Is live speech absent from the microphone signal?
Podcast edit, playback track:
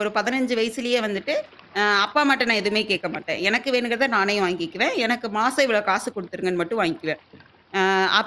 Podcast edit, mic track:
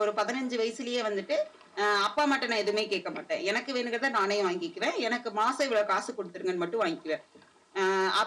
Yes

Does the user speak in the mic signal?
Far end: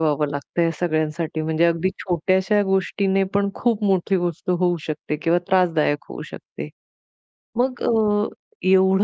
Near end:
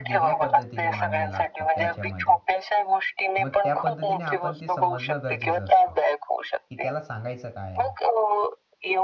Yes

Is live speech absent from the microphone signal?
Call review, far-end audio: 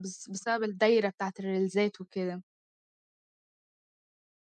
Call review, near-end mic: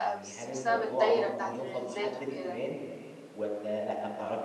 No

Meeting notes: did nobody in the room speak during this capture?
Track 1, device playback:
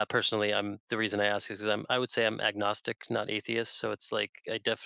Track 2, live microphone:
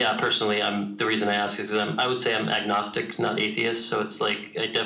Yes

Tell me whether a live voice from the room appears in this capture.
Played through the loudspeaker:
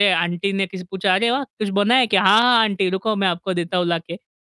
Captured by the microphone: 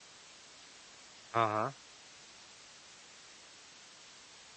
Yes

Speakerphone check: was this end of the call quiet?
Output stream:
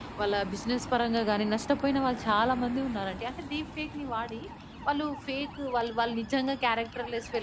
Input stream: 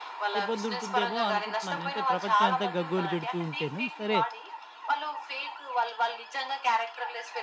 No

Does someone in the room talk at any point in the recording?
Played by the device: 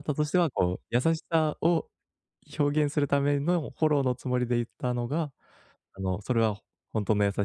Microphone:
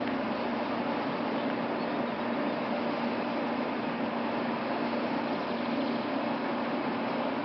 No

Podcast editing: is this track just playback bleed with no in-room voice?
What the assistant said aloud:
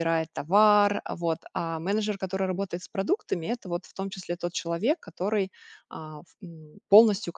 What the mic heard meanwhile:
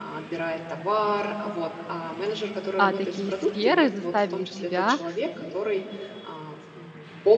No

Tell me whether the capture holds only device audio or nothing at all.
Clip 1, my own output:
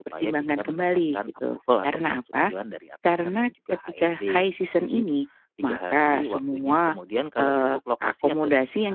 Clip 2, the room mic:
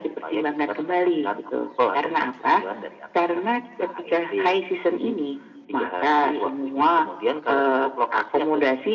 Yes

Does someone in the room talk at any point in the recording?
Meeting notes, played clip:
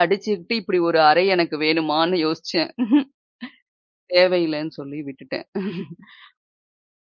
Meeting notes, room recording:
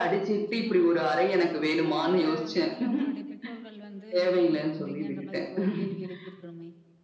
Yes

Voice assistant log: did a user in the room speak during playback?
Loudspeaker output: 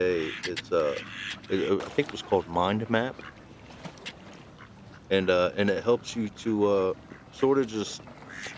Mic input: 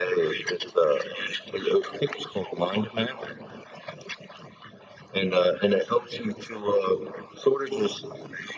No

